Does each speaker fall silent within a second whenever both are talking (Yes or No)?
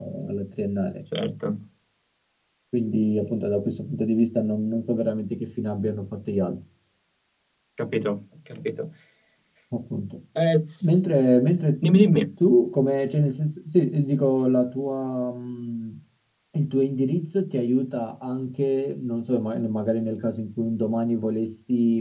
Yes